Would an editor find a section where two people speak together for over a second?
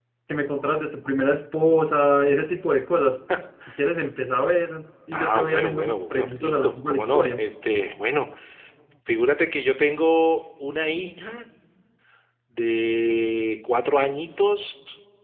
Yes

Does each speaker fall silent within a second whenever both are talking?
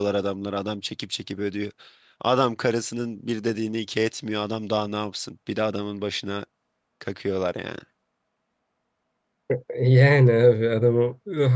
Yes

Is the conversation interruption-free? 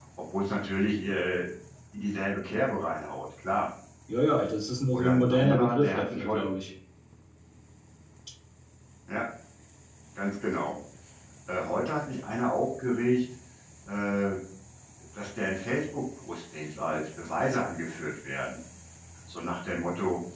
No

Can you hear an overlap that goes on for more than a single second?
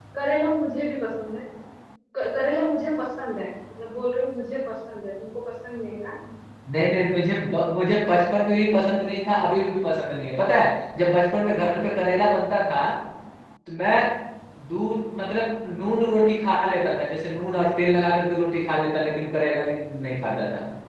No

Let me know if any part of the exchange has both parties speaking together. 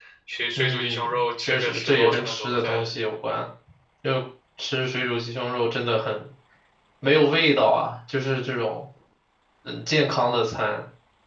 Yes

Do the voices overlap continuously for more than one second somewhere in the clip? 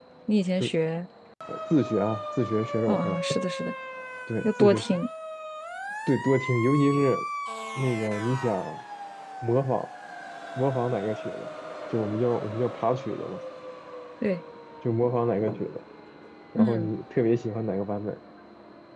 No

